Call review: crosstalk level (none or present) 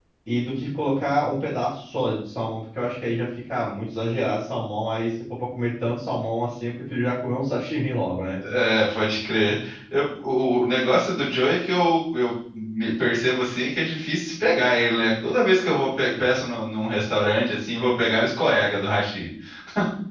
none